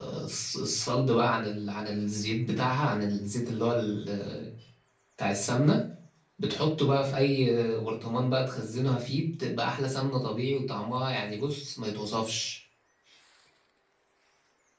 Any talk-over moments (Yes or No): No